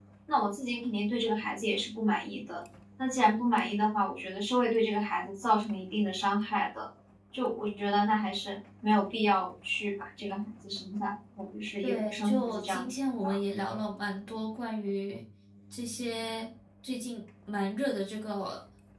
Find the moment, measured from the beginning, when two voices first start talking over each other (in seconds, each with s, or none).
11.8 s